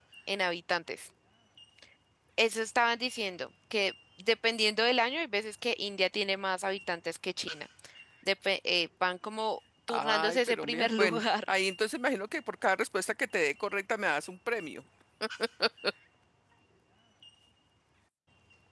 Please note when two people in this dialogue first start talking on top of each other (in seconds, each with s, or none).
9.9 s